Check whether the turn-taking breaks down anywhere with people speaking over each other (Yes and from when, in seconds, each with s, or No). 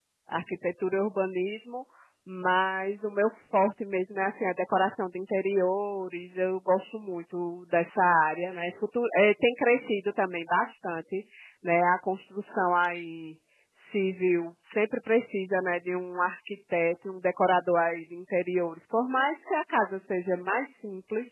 No